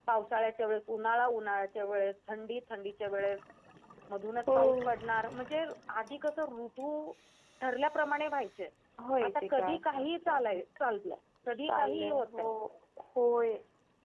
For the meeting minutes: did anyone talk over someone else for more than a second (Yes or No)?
Yes